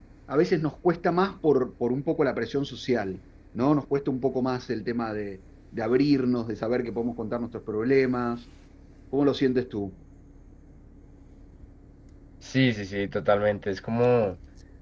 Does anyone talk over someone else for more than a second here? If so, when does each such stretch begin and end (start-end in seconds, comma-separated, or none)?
none